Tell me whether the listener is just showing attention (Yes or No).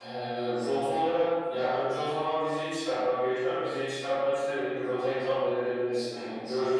Yes